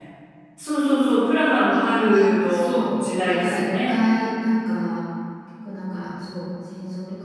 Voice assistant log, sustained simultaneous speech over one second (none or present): present